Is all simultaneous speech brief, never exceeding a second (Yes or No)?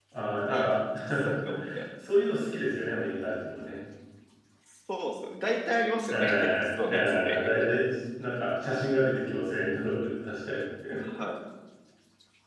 No